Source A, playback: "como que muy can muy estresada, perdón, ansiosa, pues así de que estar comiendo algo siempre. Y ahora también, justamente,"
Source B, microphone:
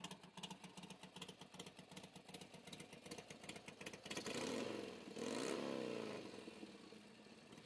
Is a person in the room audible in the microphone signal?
No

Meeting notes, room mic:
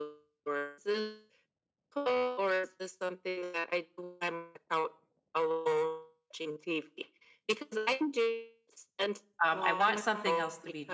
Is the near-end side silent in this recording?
No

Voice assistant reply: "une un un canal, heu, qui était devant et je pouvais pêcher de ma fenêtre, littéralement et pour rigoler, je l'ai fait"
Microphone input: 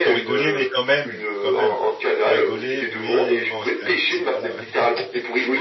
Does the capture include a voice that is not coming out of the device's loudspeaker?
Yes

